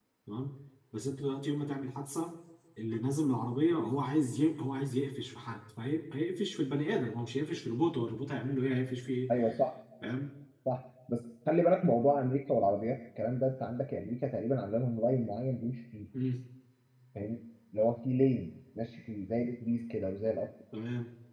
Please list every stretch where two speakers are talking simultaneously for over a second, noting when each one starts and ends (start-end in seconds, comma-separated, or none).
none